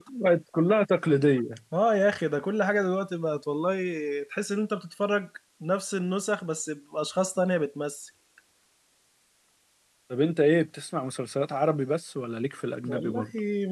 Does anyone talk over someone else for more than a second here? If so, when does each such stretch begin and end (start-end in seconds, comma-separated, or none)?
none